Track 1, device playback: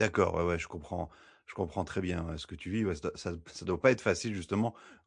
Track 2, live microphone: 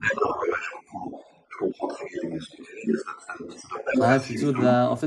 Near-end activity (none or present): present